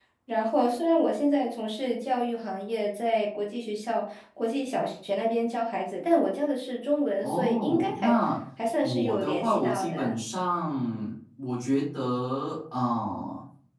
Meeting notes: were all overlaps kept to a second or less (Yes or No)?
No